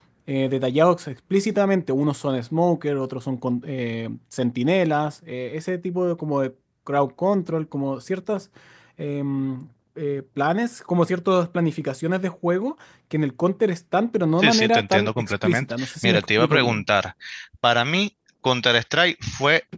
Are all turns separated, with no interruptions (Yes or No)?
No